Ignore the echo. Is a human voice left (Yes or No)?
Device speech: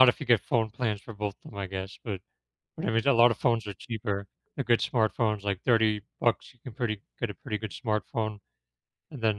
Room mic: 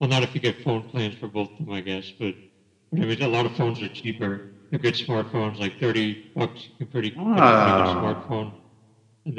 Yes